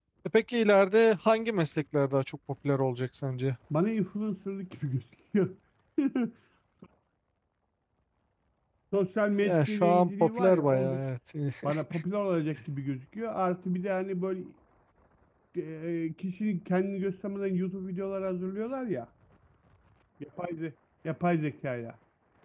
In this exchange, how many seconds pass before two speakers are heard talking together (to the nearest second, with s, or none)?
9 s